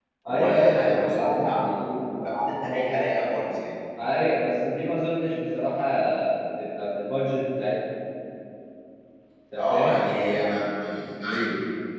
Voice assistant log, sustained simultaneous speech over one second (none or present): present